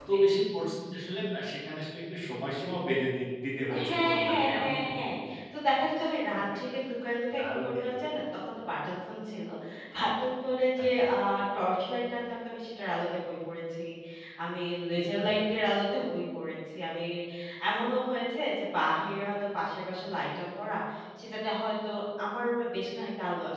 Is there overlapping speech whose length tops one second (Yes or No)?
Yes